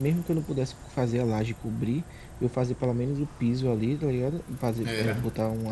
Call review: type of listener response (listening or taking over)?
listening